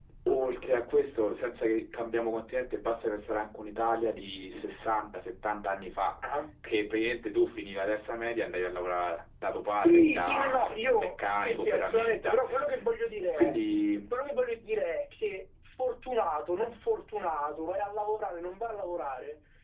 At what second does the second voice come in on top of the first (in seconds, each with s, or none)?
9.8 s